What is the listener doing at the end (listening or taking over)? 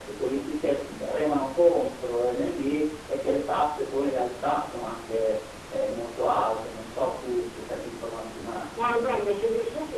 taking over